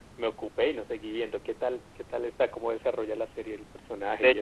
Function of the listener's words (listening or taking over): taking over